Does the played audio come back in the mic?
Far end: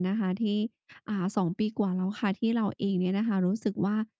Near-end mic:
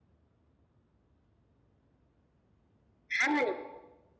No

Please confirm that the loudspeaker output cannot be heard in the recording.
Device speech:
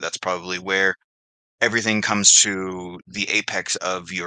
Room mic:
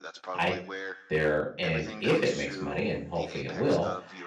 No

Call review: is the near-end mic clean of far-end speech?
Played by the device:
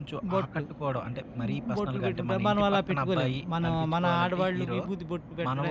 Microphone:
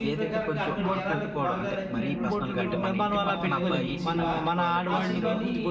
No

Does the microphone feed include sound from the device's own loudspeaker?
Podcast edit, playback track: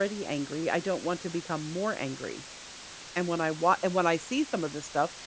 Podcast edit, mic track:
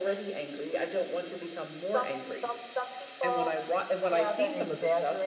Yes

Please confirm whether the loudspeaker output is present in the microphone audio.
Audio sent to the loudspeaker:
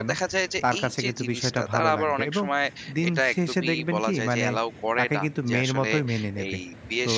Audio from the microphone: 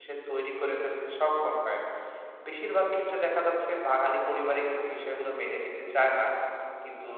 No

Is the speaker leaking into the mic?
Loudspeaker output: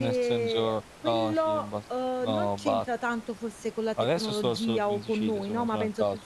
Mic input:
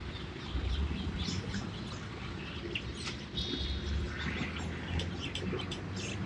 No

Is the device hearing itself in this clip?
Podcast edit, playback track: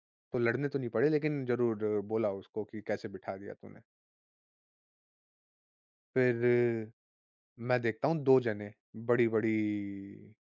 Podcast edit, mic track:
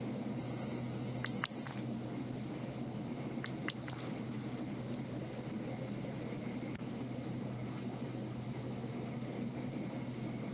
No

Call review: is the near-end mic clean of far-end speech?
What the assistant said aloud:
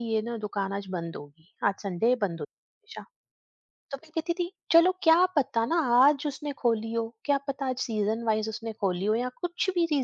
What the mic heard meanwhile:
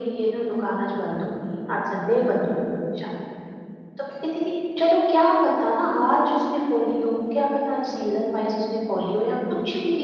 No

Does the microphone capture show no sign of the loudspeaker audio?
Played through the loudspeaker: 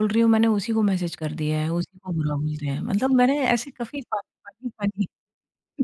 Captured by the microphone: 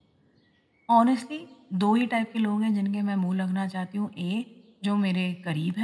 Yes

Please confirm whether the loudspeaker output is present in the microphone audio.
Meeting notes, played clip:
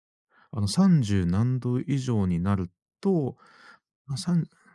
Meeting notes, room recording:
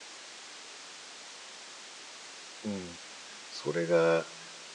No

